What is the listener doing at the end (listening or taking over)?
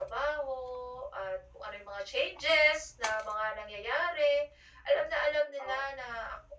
listening